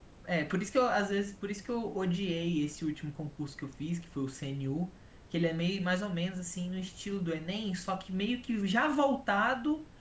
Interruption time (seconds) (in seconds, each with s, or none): none